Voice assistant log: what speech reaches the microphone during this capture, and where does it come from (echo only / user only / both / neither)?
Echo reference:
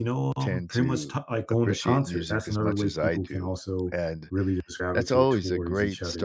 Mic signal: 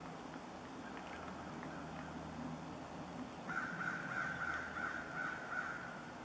neither